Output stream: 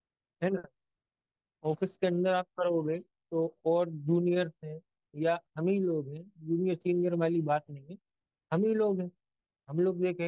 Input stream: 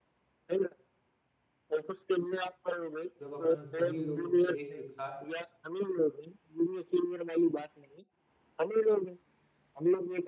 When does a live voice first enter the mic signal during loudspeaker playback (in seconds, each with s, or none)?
3.2 s